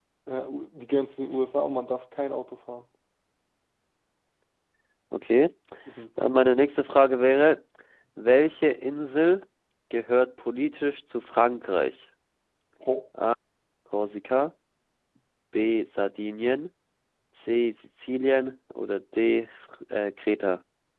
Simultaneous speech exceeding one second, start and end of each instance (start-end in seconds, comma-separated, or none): none